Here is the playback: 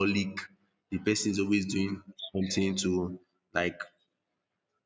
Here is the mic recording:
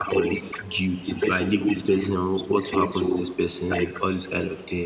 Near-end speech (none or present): present